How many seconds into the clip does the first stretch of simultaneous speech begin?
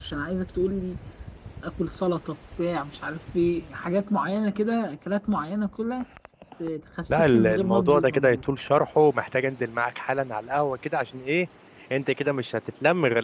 7 s

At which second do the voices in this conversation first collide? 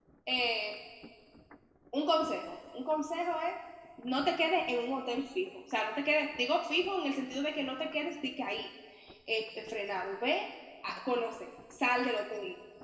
none

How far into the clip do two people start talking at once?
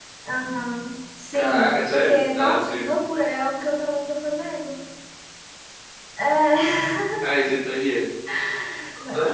1 s

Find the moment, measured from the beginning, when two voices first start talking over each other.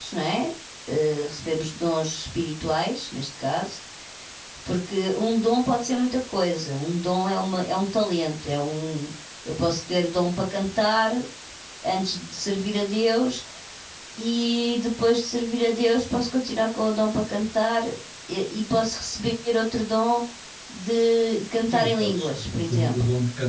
22 s

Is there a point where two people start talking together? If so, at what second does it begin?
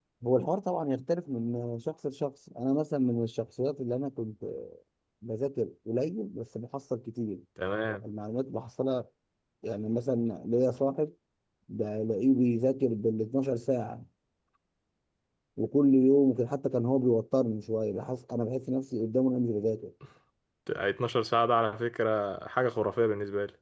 none

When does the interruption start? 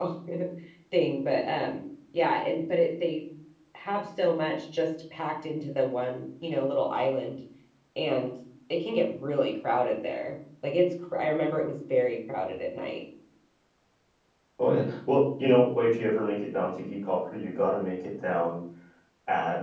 none

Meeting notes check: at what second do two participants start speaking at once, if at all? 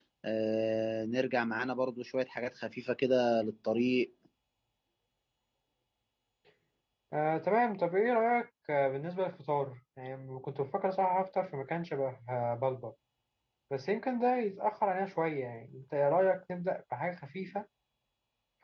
none

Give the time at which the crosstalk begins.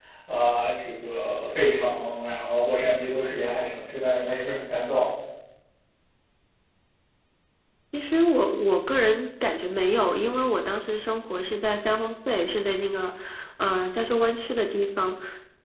none

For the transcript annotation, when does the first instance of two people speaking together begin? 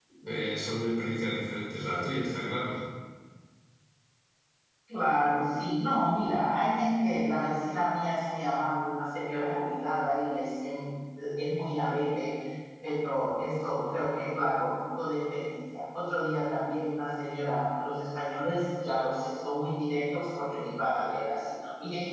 none

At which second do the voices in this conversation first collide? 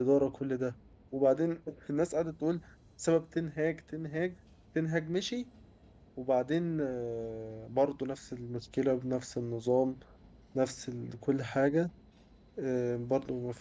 none

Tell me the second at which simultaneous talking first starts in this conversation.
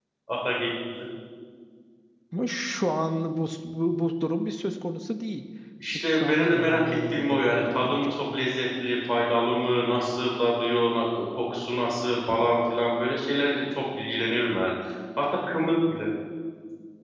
6 s

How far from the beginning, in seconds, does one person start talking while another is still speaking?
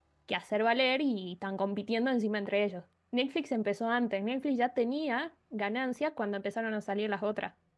none

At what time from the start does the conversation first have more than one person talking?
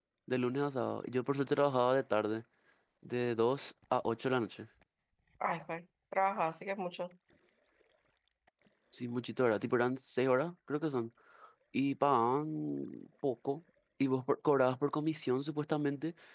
none

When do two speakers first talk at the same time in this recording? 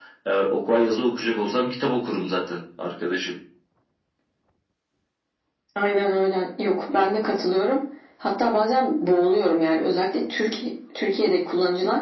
none

